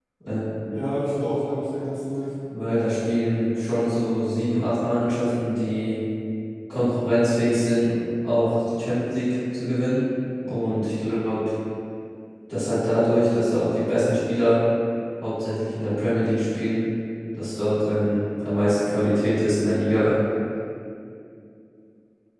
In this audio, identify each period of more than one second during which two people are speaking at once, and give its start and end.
none

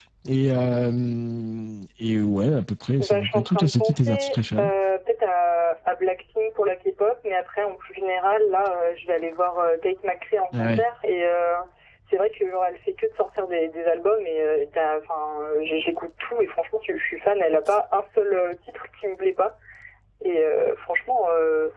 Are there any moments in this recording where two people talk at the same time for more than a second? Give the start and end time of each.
3.0-4.7

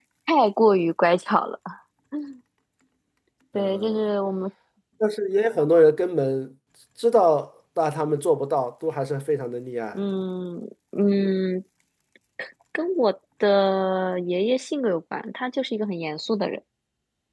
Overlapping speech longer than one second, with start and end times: none

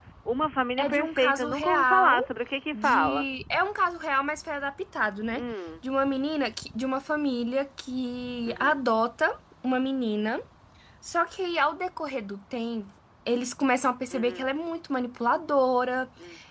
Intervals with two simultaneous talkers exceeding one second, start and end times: 0.8-2.2

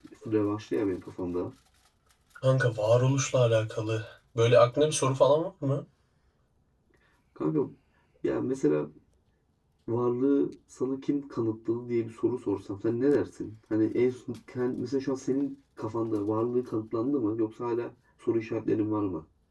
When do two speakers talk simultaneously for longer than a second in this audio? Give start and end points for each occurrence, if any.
none

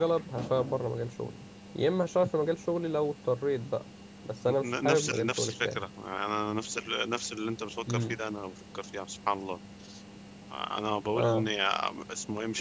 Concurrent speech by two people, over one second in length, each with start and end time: 4.6-5.8

